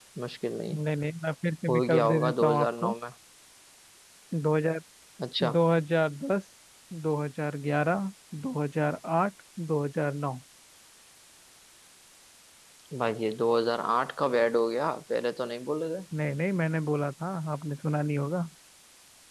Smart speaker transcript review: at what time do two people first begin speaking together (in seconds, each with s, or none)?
1.7 s